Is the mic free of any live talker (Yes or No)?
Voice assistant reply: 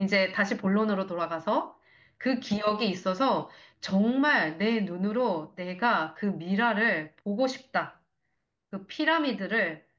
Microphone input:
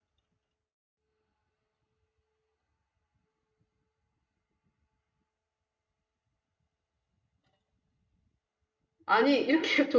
No